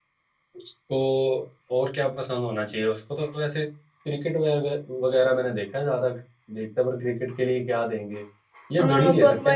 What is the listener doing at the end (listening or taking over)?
taking over